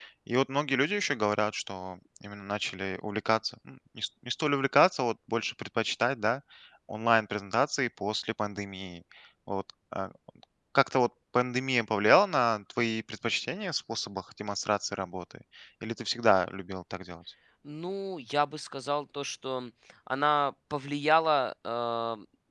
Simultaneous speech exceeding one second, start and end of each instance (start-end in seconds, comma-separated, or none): none